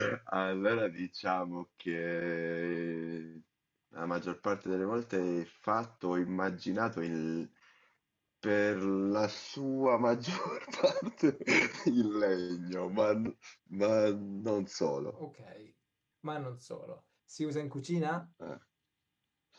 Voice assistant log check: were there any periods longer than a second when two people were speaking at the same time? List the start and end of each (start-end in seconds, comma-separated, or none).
none